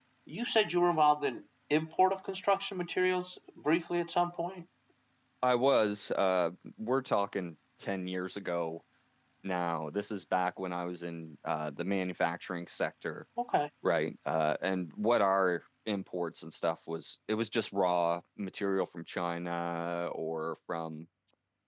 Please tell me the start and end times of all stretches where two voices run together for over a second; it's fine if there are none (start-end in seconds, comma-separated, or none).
none